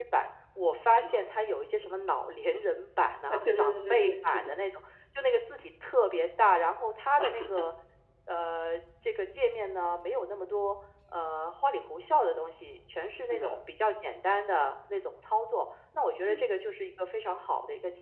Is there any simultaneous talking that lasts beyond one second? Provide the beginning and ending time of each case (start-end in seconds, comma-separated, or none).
3.3-4.6